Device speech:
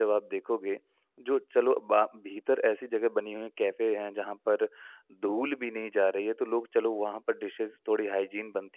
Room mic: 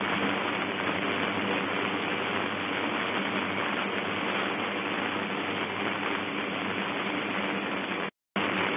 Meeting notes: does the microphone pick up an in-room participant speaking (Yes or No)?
No